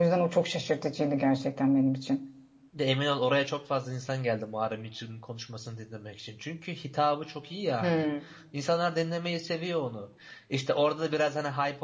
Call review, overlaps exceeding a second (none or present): none